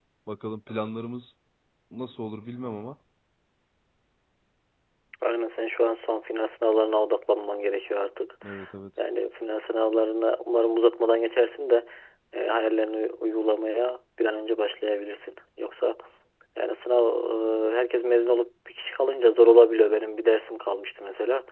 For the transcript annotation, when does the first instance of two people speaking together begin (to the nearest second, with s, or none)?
none